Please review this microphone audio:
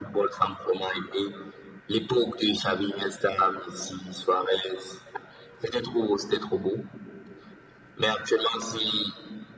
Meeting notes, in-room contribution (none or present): none